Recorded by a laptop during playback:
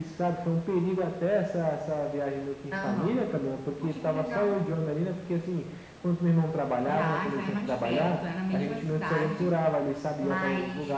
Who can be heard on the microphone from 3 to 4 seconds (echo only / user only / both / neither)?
echo only